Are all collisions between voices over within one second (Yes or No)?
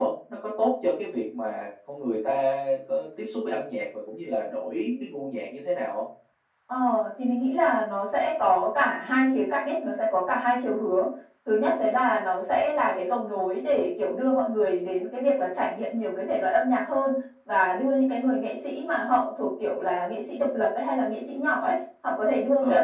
Yes